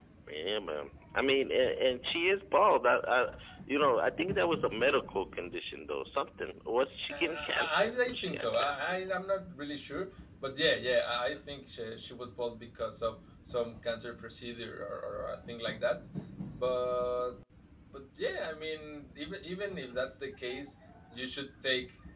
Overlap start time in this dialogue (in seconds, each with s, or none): 7.1 s